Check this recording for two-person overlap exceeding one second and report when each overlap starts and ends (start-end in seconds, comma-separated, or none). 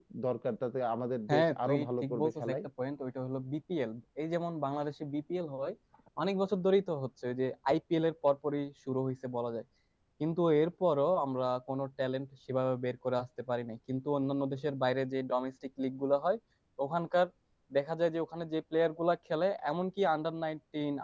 1.3-2.6